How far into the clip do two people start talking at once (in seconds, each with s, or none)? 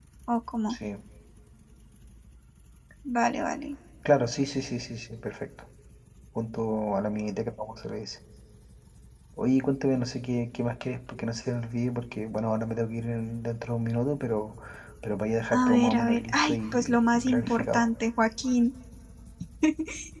15.5 s